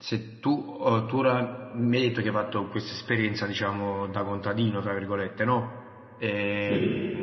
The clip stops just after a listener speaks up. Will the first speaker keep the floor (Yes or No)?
Yes